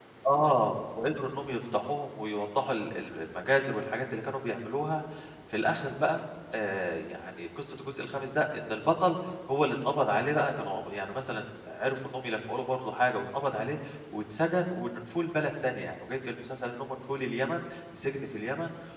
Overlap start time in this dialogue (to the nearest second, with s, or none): none